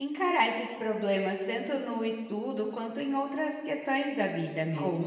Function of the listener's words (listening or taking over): taking over